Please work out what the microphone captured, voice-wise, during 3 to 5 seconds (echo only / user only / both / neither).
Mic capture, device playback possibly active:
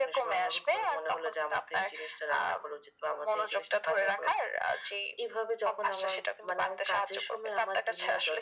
echo only